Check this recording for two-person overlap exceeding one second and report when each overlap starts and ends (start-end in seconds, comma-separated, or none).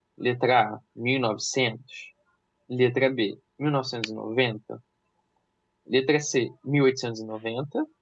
none